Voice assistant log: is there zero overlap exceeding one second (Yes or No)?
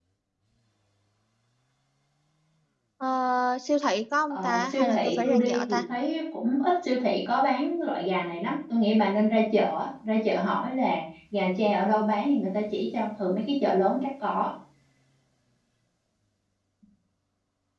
No